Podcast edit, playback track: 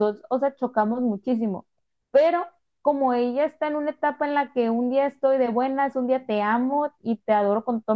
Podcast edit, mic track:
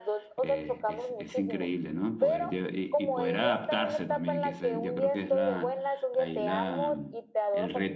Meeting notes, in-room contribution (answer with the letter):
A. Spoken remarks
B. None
A